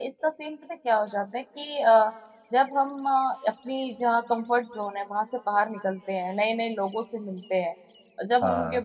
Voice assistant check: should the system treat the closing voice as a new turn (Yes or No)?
No